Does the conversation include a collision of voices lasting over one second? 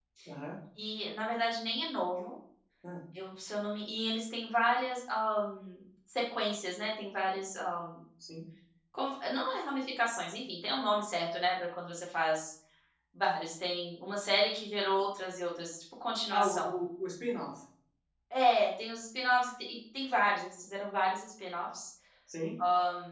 No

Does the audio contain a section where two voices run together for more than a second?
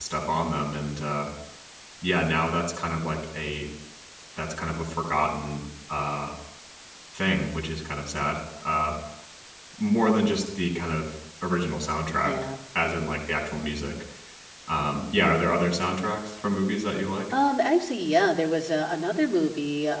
No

